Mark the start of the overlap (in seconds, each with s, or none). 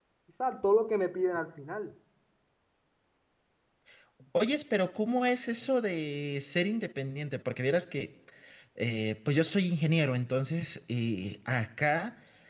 none